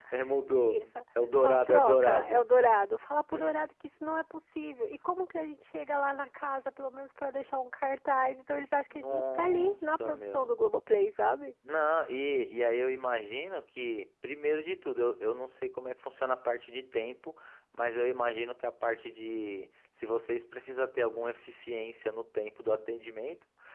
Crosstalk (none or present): present